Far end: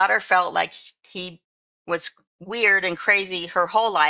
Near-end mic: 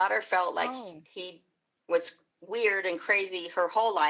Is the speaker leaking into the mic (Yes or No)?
Yes